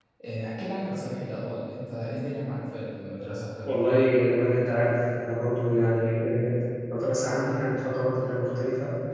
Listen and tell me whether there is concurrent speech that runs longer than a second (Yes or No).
No